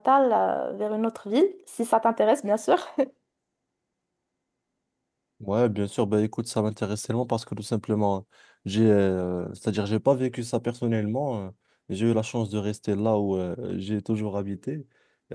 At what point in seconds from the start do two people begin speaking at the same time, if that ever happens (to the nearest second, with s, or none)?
none